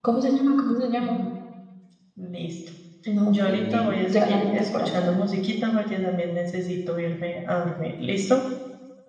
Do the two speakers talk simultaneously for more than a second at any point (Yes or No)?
Yes